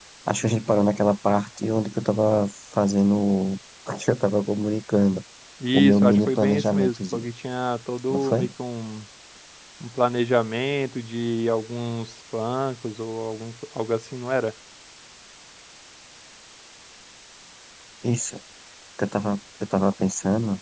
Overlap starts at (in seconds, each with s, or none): 5.7 s